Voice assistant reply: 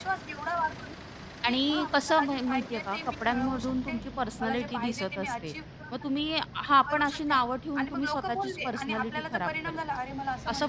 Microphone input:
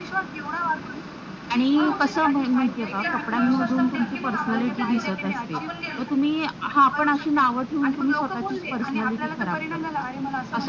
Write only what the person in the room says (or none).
हां, मग ते ते एकदा आत्मविश्वास संपला, की मग आपण कुठेच उरत नाही. आपण गेलो. हं.